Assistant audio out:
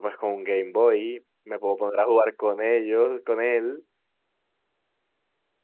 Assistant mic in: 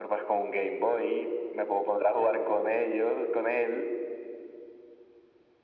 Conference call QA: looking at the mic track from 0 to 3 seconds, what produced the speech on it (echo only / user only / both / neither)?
echo only